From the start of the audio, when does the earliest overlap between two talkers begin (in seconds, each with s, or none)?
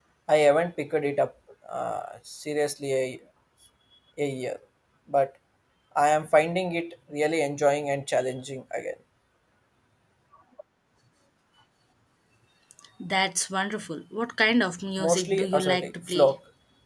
15.0 s